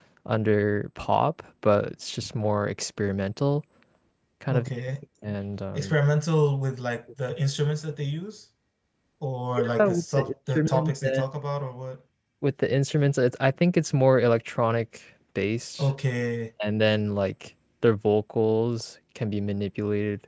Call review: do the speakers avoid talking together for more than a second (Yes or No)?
No